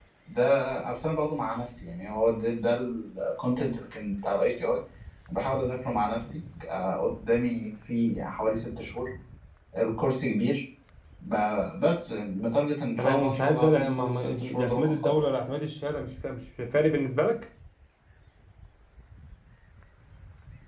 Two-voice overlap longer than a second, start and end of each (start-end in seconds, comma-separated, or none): 12.9-15.2